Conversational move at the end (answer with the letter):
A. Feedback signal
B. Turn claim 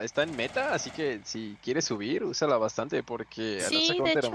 B